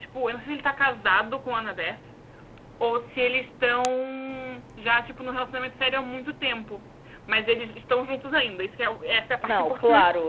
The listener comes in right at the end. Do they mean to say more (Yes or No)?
Yes